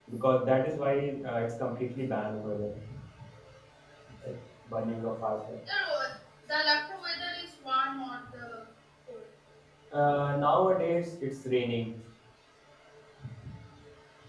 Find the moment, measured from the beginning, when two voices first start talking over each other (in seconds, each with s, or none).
none